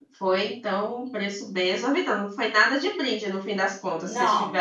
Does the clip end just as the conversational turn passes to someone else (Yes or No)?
Yes